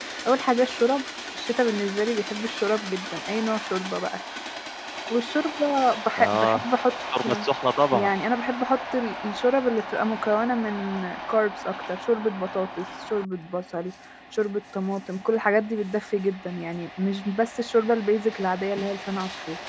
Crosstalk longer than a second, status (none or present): none